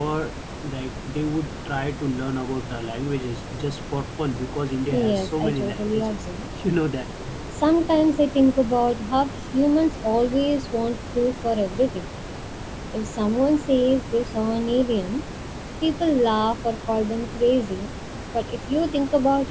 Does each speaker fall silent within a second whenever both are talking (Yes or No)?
No